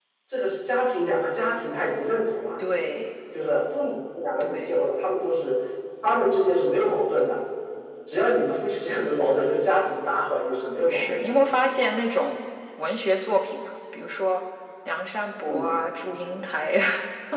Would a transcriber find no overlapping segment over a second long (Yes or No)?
Yes